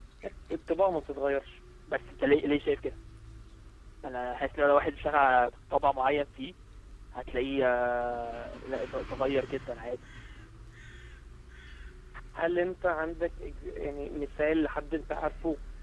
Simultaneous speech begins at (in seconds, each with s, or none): none